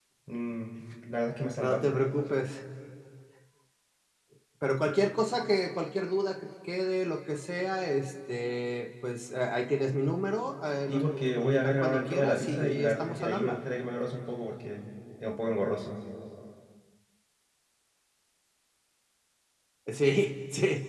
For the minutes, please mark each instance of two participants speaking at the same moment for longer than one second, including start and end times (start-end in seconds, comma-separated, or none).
10.9-13.6